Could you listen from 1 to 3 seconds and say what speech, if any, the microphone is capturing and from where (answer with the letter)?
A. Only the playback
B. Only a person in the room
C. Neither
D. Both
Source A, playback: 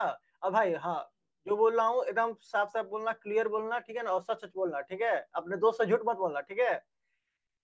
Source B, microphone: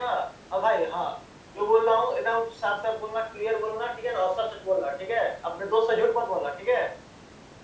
A